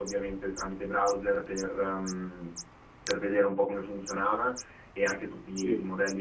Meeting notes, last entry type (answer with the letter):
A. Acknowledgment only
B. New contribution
A